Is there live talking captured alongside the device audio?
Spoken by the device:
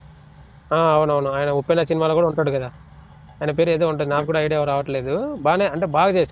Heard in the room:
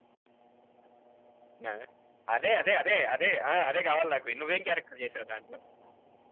Yes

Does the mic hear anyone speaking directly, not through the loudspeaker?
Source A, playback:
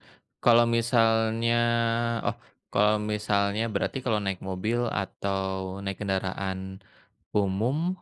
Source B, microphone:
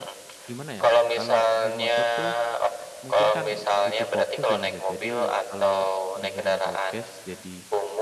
Yes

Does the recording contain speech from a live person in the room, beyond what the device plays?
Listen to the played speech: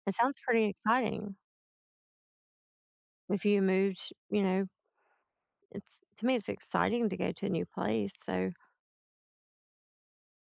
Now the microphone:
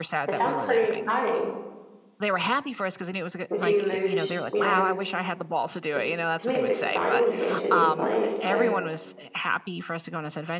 Yes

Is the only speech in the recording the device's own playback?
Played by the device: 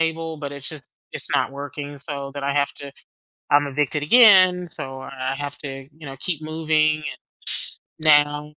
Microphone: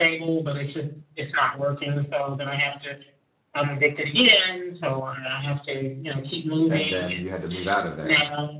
No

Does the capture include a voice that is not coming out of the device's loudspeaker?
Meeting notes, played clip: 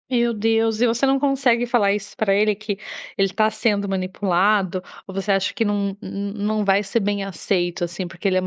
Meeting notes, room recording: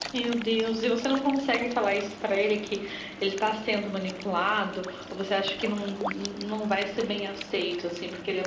No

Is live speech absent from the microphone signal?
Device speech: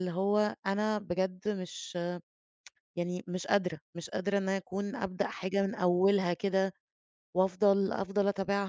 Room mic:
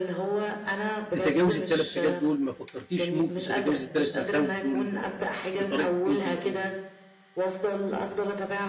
No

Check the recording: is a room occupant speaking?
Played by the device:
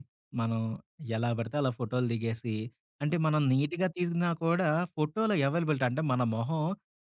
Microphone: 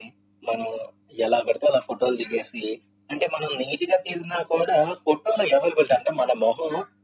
No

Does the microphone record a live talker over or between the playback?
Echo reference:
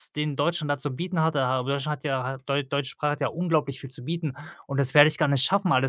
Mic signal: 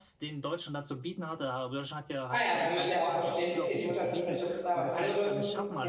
Yes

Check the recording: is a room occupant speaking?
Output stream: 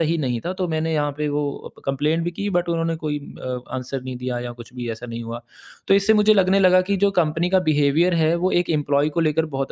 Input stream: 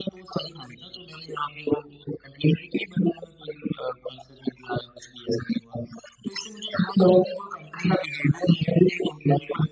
No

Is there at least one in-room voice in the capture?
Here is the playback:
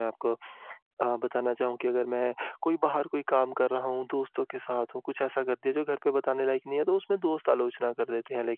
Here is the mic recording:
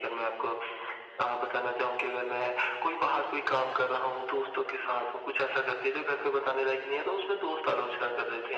No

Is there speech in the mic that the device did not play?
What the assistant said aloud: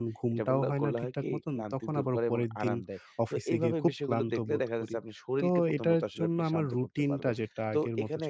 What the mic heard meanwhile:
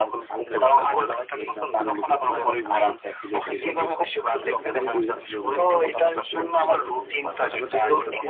Yes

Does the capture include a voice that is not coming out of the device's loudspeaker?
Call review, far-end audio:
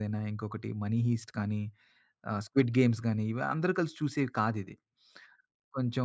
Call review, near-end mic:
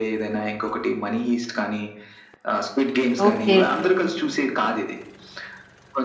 Yes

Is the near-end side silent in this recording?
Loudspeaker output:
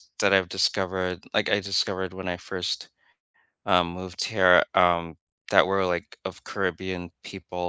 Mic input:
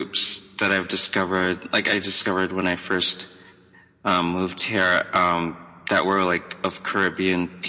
Yes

